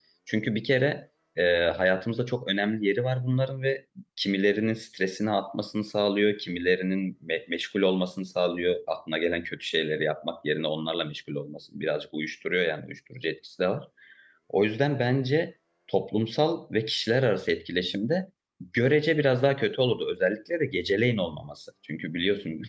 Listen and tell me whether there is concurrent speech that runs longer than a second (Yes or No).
No